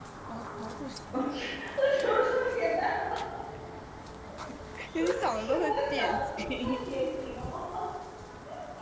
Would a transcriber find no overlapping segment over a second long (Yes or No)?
No